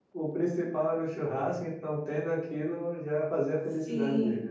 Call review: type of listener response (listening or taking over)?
taking over